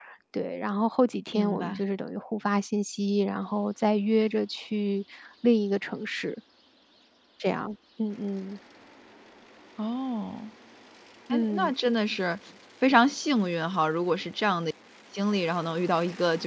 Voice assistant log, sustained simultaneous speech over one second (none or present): none